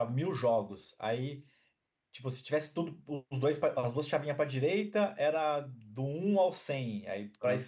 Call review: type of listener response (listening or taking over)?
listening